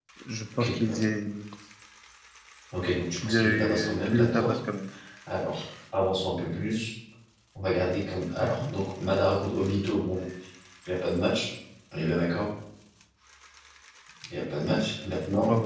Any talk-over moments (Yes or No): Yes